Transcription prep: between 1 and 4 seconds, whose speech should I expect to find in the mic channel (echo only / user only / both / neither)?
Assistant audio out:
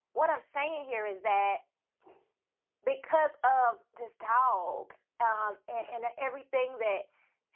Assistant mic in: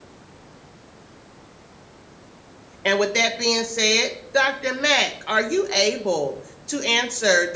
user only